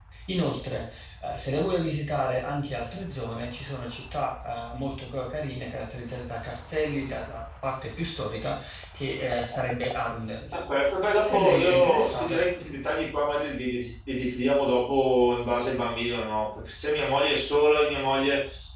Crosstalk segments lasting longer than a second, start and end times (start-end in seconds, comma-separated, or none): 11.2-12.4